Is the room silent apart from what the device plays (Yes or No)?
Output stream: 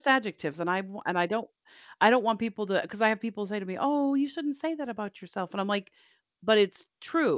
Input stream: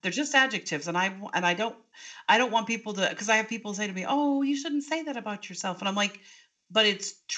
Yes